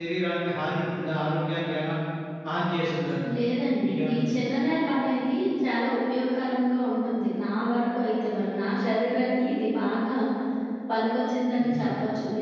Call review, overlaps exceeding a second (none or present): none